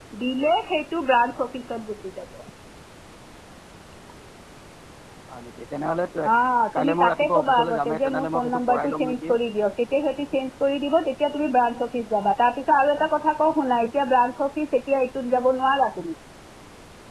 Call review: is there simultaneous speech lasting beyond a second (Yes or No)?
Yes